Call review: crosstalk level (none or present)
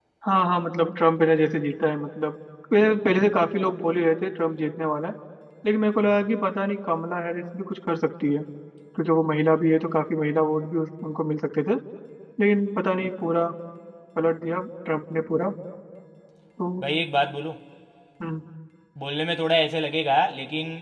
none